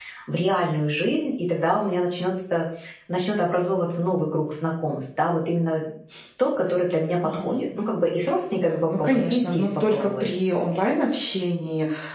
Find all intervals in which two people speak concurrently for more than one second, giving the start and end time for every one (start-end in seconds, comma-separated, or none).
8.8-10.2